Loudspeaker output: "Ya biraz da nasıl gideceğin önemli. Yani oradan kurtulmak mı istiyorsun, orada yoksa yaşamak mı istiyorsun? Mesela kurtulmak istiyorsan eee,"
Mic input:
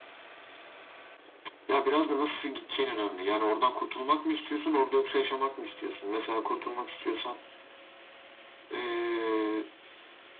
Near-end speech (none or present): none